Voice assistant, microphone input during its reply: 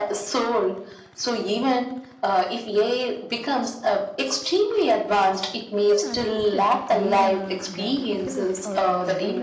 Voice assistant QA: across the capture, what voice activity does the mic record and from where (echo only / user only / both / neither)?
both